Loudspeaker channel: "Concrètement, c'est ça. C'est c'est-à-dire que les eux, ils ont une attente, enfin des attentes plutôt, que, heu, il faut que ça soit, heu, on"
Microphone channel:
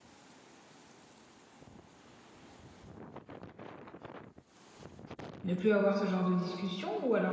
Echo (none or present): none